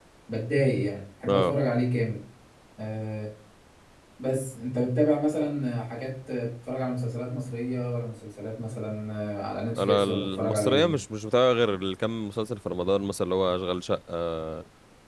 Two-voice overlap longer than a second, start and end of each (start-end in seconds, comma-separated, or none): 9.8-11.0